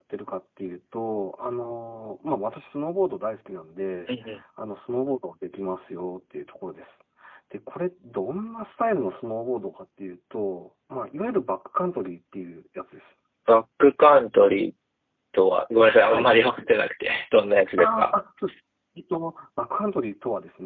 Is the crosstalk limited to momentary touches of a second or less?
Yes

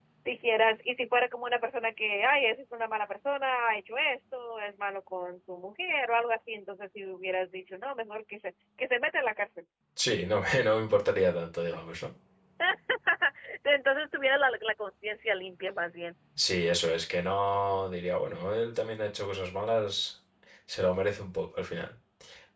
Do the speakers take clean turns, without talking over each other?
Yes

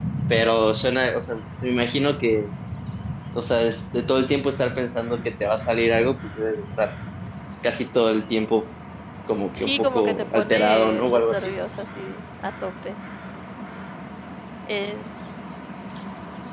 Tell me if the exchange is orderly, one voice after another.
No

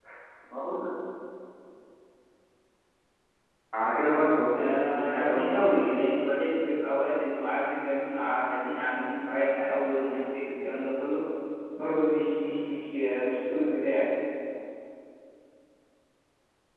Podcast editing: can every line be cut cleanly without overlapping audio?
No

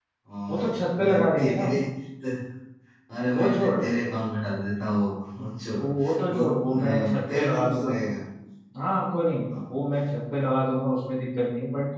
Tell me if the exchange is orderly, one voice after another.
No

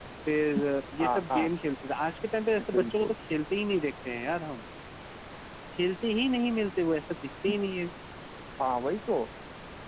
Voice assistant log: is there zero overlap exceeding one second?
Yes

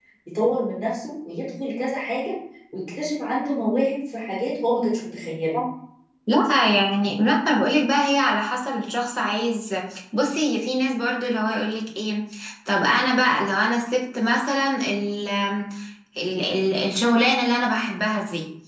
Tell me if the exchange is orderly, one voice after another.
Yes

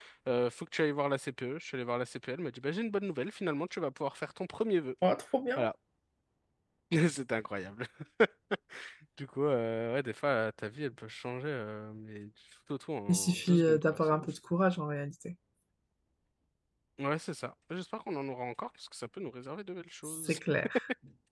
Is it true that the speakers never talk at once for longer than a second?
No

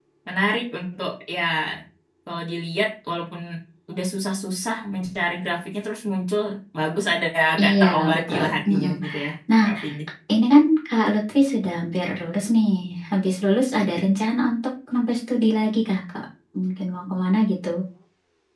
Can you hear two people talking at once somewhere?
Yes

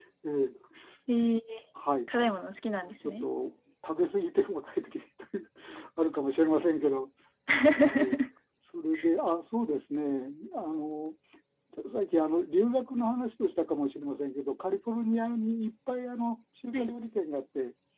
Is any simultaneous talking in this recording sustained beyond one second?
No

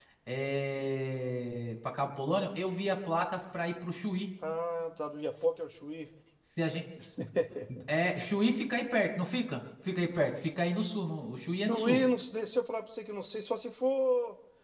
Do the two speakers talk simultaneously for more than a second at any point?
No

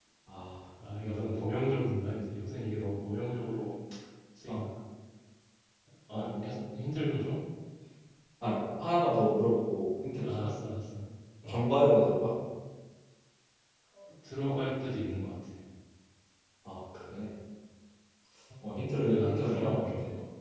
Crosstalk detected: Yes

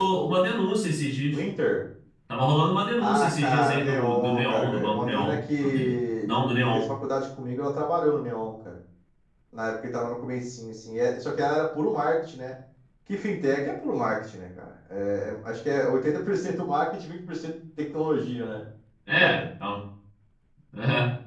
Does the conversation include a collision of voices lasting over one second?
Yes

